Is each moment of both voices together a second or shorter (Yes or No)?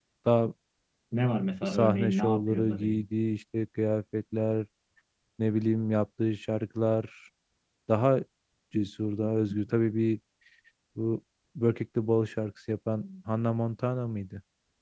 No